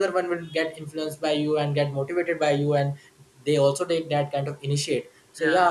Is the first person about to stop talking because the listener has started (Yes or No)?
No